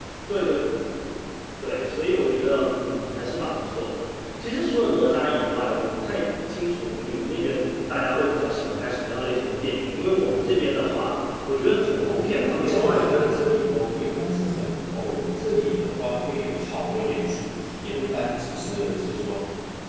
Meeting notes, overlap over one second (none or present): present